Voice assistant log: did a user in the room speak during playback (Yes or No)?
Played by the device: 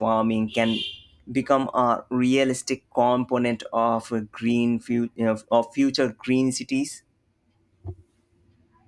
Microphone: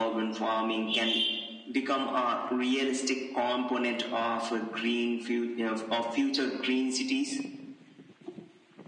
No